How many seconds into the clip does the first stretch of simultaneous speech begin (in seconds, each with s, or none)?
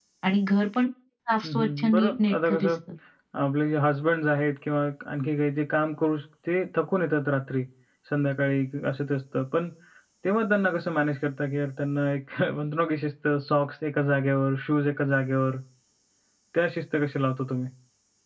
1.4 s